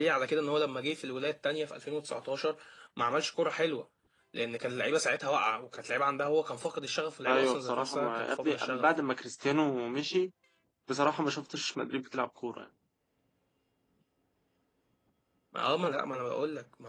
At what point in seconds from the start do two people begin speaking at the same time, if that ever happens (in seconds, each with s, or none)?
7.3 s